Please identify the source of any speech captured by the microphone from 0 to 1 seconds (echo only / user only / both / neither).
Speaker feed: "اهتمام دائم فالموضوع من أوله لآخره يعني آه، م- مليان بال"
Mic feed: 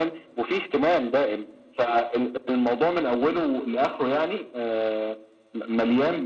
echo only